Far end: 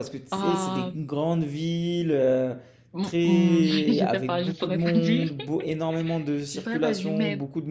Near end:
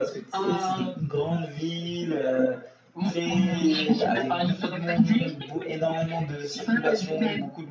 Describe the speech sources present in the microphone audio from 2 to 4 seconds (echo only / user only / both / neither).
echo only